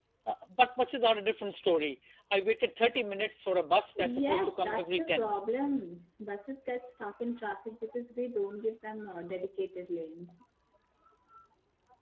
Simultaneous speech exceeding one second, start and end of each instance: 4.0-5.4

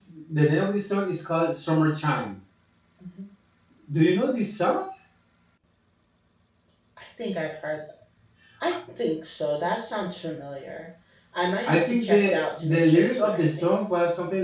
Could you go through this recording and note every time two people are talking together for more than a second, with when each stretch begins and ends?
11.7-13.7

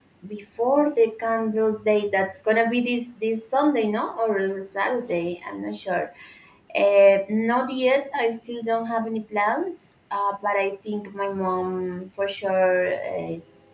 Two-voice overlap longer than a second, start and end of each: none

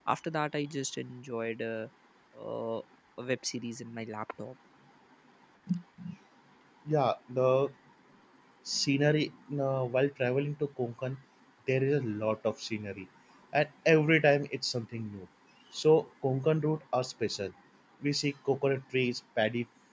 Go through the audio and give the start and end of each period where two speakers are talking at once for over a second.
none

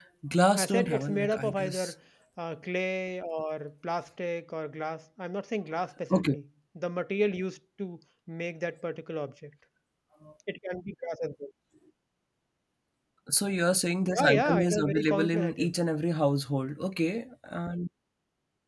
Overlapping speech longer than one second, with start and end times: 0.6-1.9, 14.1-15.8

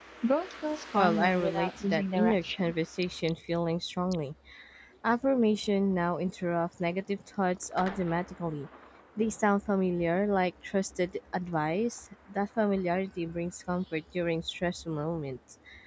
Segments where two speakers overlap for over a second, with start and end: 0.9-2.7

